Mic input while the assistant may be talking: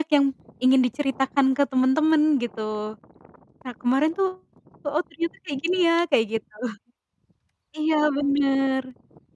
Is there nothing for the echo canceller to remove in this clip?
Yes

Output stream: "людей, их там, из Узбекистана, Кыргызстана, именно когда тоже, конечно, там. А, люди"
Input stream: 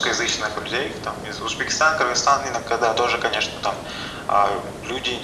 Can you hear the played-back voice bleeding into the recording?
Yes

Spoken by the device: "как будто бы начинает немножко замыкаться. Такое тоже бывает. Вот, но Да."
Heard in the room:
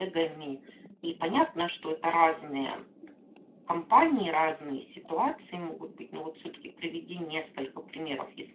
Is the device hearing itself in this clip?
No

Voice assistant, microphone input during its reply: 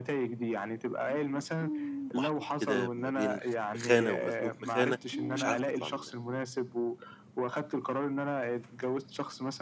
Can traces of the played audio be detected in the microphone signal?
Yes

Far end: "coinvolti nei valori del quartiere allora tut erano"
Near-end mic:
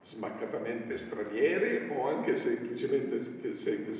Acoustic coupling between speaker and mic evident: No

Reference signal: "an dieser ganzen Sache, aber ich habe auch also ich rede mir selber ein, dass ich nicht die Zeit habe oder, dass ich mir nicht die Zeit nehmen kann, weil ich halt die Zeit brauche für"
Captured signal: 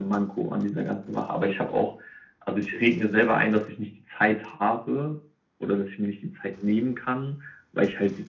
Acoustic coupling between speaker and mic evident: Yes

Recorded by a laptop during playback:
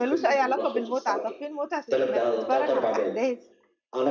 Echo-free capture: No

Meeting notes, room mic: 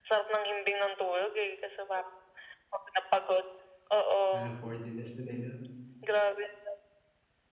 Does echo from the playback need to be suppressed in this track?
Yes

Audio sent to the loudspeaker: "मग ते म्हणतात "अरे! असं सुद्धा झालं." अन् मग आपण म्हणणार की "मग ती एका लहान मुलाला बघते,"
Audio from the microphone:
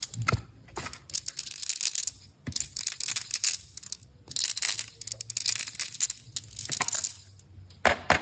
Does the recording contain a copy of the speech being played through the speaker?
No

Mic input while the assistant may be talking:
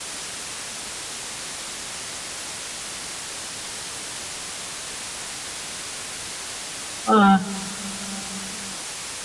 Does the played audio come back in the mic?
No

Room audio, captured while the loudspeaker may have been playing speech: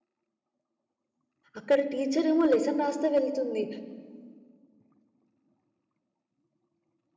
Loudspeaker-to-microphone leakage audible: No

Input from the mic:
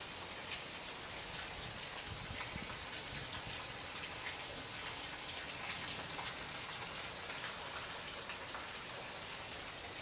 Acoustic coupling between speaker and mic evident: No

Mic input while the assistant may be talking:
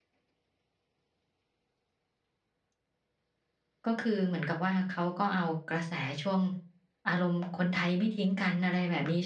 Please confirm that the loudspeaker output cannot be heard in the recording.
Yes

